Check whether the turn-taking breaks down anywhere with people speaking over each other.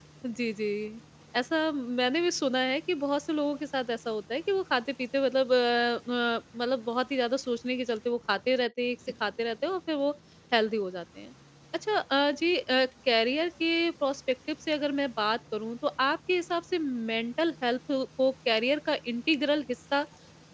No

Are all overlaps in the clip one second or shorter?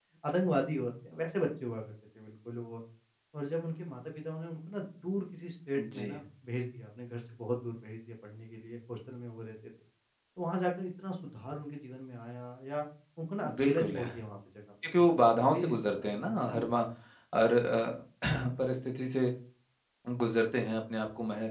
No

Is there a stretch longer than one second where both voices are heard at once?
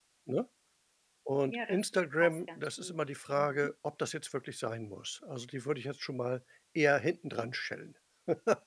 Yes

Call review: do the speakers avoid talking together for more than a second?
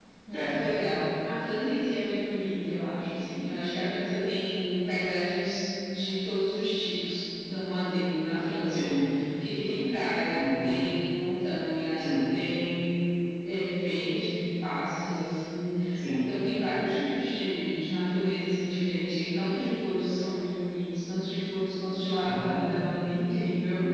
Yes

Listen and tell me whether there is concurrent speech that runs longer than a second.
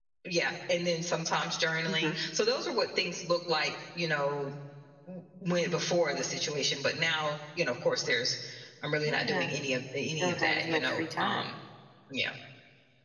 Yes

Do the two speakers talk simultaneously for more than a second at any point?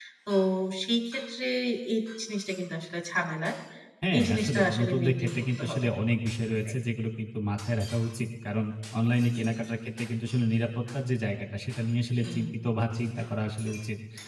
Yes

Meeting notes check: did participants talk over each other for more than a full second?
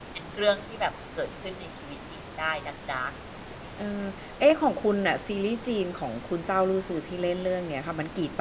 No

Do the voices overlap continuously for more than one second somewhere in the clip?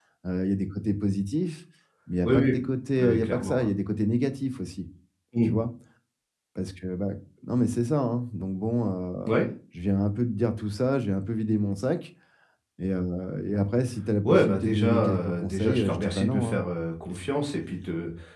Yes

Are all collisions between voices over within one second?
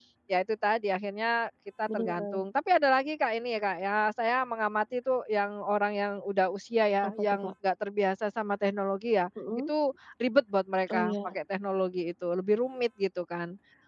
Yes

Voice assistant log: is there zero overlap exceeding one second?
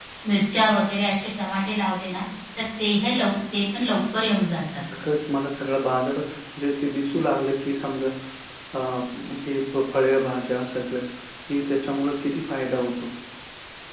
Yes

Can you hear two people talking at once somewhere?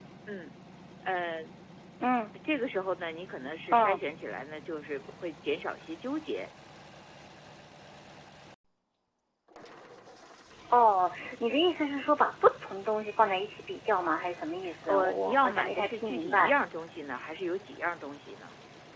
Yes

